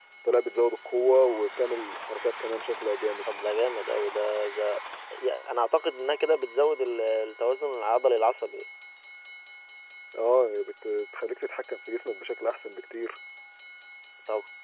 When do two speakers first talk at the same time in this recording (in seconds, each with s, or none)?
none